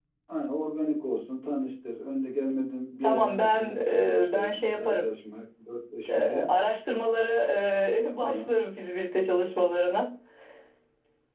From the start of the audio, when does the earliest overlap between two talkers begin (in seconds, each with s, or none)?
3.0 s